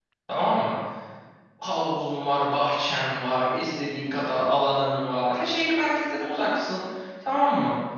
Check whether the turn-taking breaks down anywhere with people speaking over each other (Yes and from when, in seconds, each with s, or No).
No